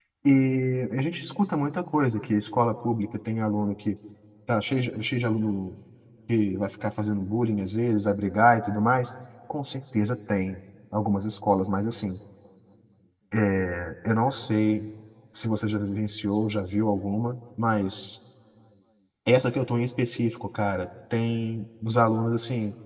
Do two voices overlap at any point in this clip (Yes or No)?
No